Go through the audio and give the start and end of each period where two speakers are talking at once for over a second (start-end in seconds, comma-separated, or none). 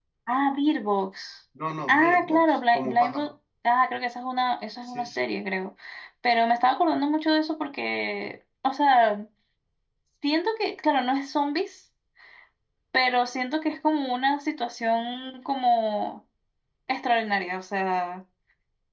1.9-3.3